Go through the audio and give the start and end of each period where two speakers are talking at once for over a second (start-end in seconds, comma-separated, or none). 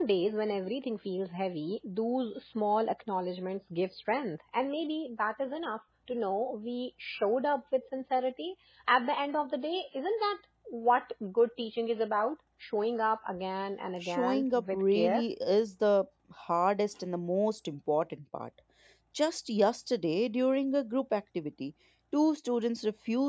14.0-15.2